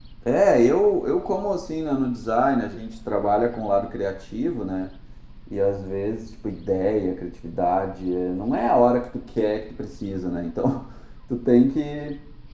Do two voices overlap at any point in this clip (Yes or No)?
No